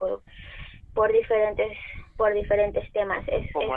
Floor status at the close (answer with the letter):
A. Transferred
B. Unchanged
A